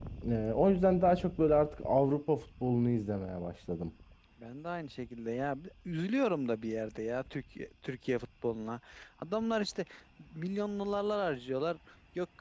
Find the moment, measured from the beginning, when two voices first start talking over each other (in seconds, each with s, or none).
none